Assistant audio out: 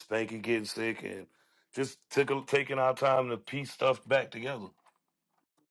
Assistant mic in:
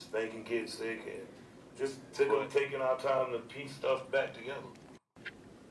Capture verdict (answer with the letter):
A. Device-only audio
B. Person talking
B